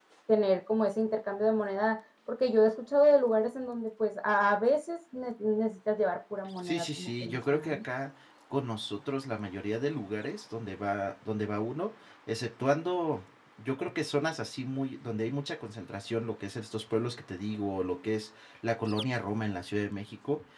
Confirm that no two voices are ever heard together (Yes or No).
No